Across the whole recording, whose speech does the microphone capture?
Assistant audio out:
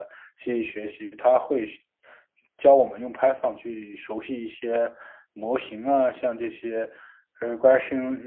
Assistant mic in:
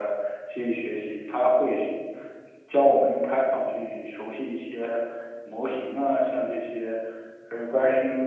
echo only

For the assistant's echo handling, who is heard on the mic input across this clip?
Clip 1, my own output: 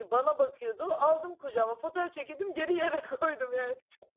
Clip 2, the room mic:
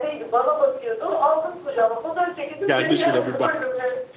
both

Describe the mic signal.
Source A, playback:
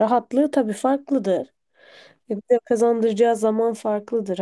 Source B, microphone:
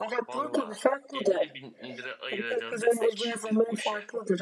both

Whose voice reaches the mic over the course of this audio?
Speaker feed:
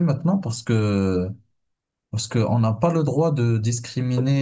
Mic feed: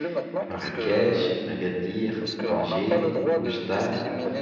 both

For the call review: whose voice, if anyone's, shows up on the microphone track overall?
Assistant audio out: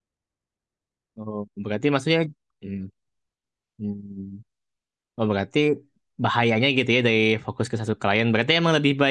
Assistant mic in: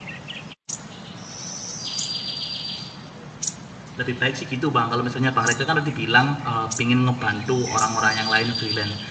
user only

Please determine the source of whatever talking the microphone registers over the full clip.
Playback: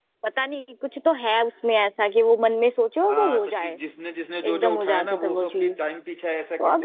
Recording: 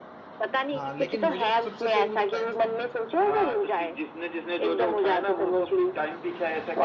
both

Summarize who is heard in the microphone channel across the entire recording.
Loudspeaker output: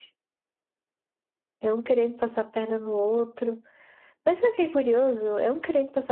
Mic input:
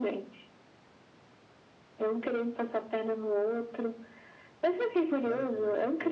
both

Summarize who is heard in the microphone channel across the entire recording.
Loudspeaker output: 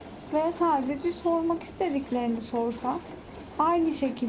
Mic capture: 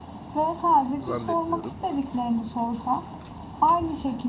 both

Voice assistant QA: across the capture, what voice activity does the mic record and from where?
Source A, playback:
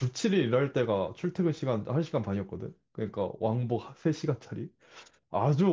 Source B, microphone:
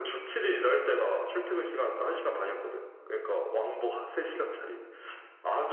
echo only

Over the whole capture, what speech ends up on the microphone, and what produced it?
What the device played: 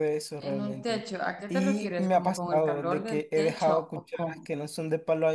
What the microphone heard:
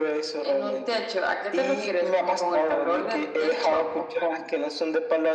echo only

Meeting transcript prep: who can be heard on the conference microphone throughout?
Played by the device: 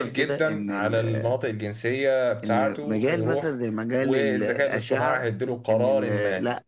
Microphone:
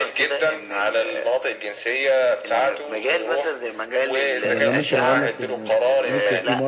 both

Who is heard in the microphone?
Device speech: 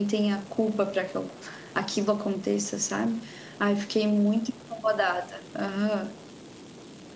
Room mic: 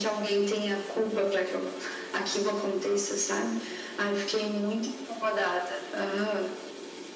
echo only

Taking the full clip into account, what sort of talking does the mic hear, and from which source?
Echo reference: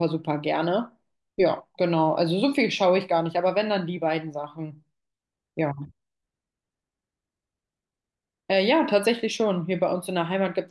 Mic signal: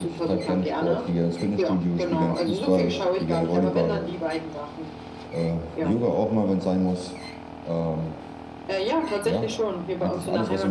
both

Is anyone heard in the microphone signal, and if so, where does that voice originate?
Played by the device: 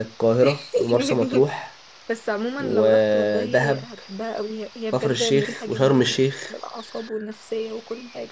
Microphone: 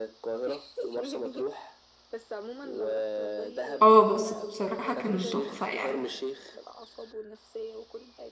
both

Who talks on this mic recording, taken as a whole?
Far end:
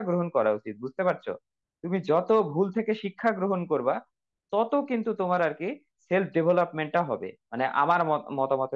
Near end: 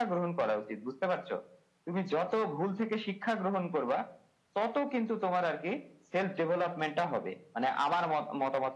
echo only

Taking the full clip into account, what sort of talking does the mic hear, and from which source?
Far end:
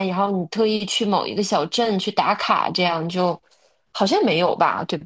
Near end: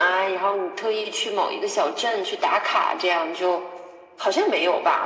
echo only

